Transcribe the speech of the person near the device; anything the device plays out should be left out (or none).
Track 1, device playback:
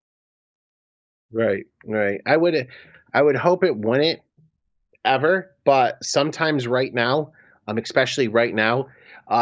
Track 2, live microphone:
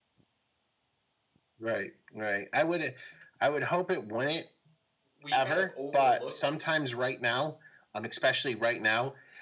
we kind of overlook